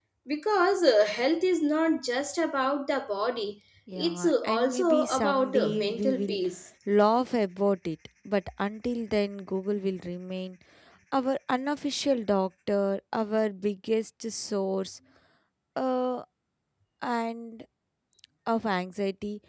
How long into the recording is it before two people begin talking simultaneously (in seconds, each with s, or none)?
3.9 s